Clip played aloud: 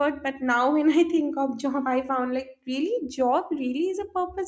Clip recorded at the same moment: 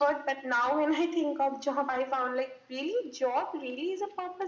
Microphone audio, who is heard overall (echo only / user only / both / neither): echo only